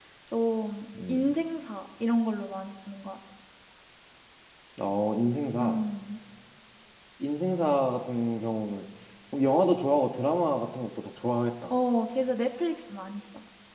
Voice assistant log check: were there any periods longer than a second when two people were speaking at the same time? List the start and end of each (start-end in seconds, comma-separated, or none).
none